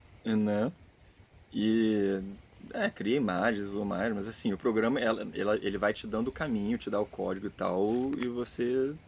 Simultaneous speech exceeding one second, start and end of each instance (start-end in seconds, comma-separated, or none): none